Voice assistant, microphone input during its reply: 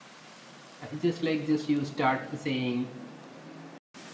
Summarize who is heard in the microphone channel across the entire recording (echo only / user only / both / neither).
user only